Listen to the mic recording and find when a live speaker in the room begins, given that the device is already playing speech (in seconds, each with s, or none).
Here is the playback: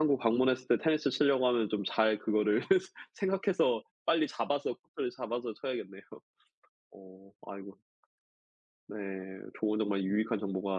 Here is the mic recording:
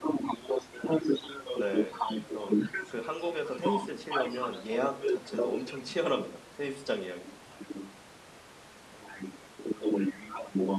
1.5 s